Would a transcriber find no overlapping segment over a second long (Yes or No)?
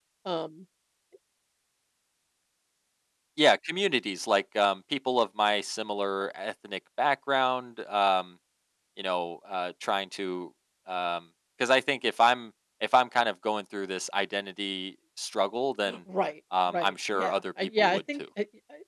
No